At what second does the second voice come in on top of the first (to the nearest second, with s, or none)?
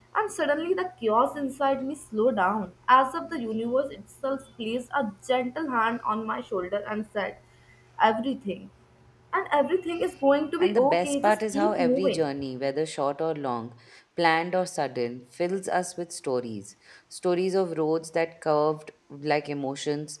11 s